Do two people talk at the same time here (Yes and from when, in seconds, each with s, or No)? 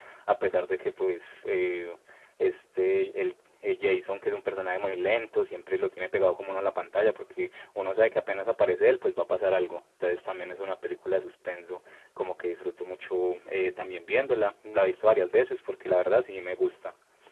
No